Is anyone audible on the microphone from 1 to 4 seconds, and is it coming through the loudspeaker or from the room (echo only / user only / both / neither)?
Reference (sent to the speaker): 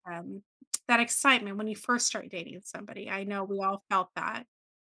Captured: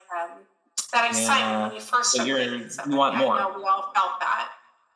both